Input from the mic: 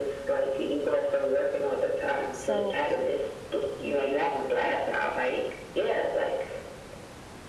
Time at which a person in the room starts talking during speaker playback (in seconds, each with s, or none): 2.3 s